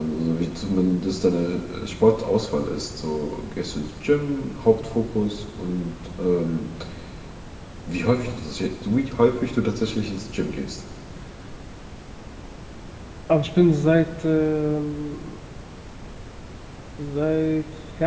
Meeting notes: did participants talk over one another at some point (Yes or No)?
No